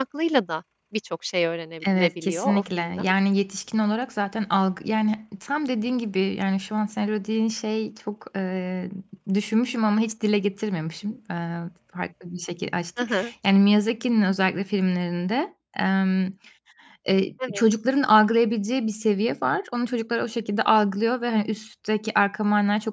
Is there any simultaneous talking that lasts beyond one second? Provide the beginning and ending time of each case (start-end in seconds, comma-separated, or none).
1.9-3.1